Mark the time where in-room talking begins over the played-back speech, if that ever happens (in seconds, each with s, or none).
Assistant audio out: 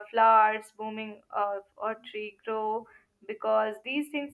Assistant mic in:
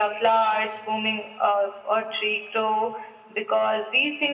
none